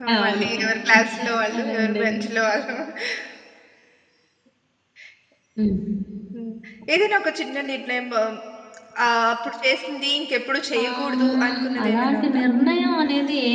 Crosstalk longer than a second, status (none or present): present